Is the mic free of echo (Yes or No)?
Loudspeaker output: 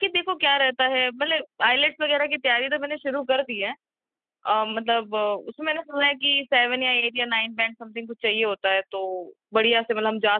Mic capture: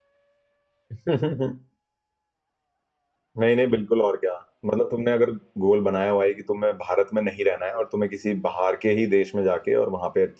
Yes